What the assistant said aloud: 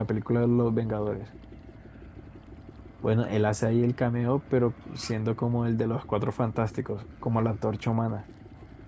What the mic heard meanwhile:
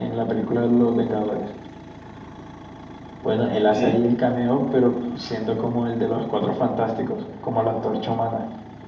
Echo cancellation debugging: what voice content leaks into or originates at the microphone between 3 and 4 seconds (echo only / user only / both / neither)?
both